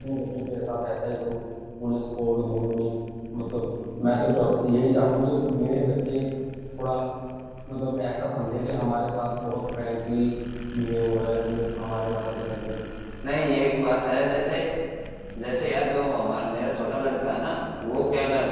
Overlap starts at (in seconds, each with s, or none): none